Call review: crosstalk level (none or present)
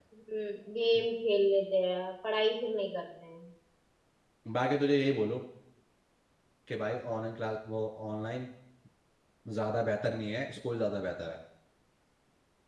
none